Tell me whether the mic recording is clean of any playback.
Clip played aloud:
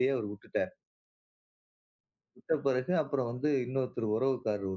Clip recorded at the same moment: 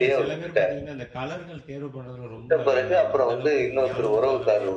No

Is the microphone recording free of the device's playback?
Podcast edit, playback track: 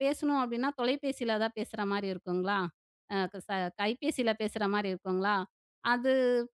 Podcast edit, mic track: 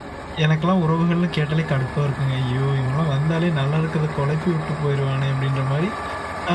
Yes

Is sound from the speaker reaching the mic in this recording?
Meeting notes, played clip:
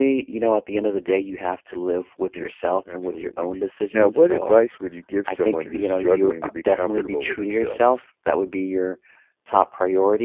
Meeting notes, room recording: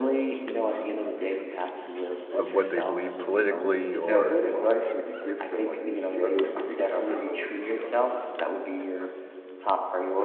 Yes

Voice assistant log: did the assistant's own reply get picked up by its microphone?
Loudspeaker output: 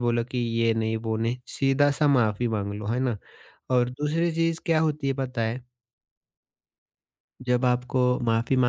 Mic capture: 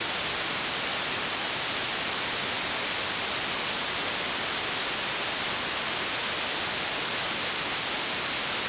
No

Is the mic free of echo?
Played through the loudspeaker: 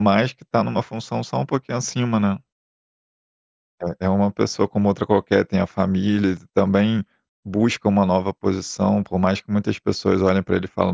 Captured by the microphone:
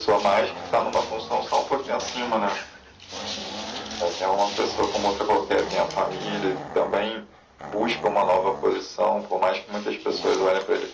No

